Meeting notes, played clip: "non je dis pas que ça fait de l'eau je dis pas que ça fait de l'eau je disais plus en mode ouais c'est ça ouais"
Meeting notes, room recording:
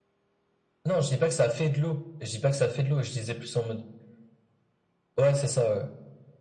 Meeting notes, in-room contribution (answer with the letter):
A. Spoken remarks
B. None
B